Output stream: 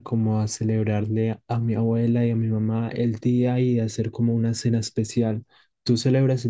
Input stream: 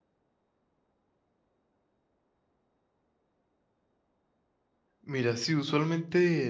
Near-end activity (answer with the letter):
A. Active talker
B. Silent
A